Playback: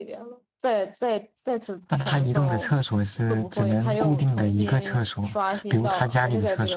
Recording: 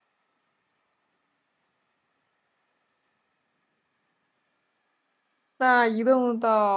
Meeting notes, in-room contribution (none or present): present